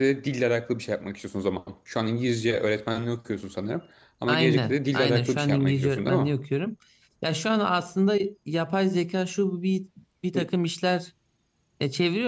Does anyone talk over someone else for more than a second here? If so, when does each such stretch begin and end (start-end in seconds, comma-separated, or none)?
4.3-6.3